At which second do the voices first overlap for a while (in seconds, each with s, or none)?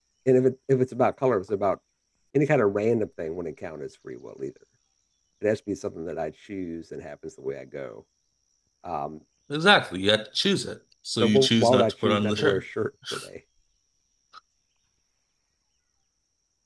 11.2 s